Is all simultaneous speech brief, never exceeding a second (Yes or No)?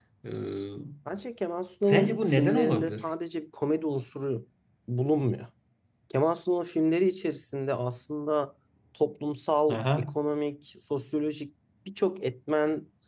No